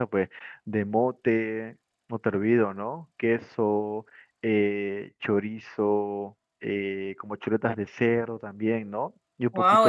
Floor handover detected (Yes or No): Yes